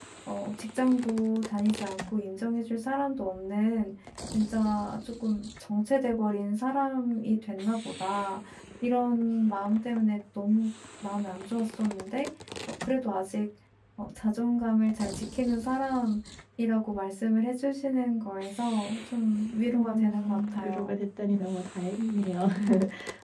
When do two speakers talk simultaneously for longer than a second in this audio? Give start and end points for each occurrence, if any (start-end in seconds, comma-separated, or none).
19.7-21.0